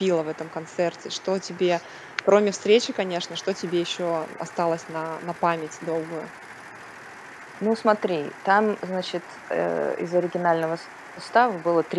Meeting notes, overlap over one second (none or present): none